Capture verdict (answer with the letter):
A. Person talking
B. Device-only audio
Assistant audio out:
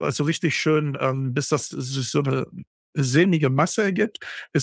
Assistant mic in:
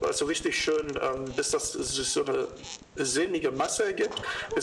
B